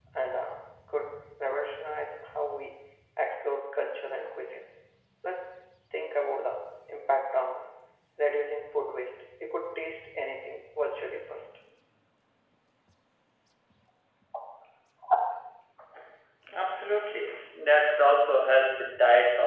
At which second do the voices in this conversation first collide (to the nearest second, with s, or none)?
none